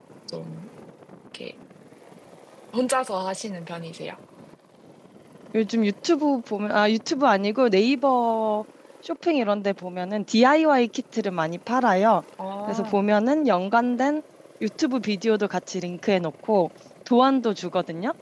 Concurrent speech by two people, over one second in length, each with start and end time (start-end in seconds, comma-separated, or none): none